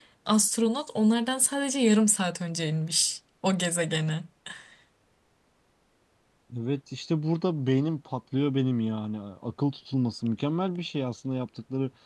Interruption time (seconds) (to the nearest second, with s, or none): none